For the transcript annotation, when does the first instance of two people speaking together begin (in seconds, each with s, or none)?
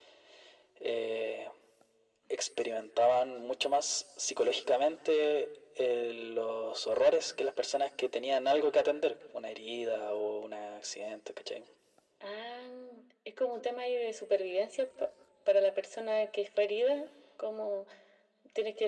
none